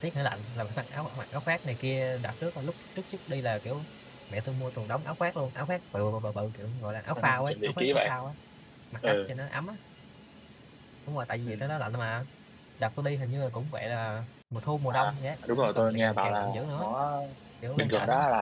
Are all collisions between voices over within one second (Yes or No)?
No